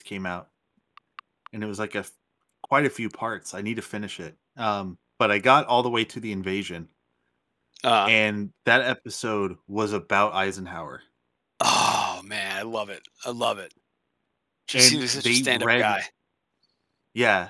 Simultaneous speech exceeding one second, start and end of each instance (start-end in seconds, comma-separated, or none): 14.7-16.0